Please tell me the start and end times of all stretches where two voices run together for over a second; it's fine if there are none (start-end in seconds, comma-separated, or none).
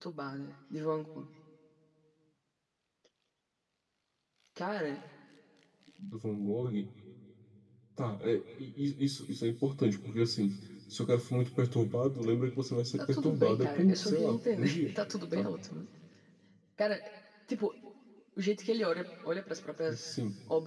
13.0-14.9